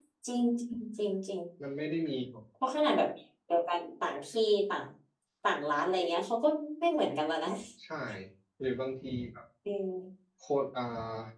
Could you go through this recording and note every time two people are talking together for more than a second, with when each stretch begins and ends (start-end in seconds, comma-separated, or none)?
none